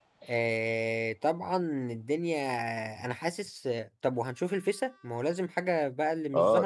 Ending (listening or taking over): taking over